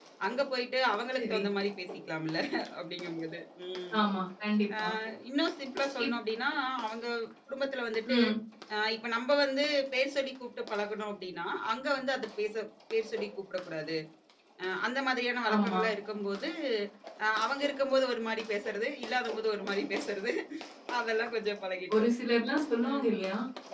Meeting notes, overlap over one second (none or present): none